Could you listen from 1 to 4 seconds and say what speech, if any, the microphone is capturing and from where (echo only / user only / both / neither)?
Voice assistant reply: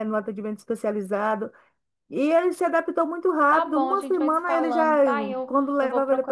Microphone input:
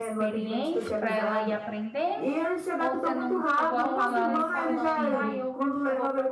both